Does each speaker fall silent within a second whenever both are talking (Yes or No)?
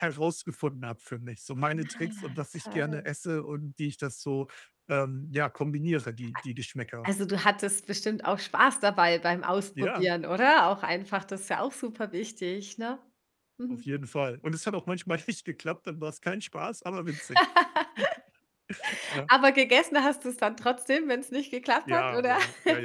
No